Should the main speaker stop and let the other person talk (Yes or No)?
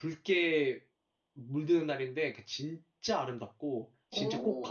Yes